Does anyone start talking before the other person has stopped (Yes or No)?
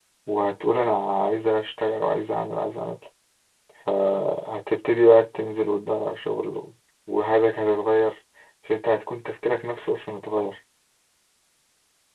No